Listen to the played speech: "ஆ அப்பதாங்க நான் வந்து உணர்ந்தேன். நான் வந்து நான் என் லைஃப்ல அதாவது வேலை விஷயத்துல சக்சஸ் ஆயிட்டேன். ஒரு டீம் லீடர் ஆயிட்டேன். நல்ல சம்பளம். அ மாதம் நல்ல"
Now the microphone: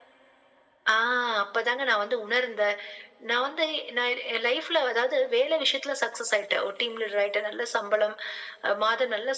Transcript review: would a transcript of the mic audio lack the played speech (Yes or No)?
No